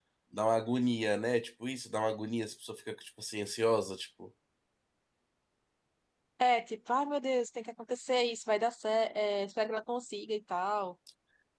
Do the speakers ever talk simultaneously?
No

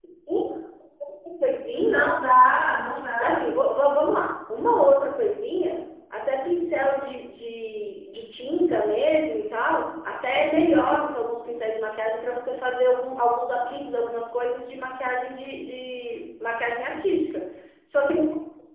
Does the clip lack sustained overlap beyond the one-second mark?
Yes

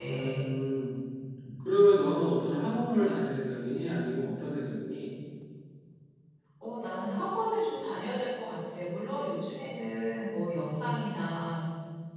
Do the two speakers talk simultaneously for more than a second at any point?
No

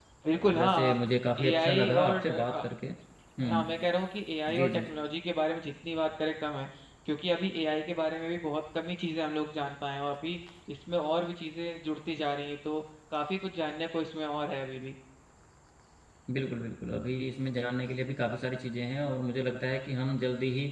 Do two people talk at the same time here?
Yes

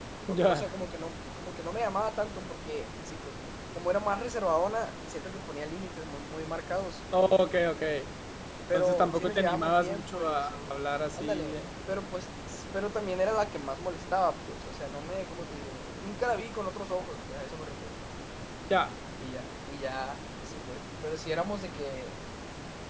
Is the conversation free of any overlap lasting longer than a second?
No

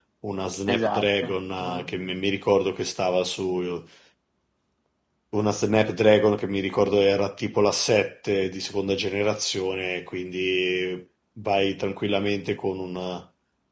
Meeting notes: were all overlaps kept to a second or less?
No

